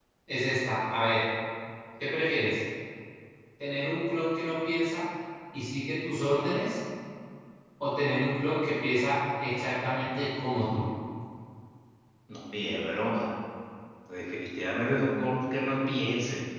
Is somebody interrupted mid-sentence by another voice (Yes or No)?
No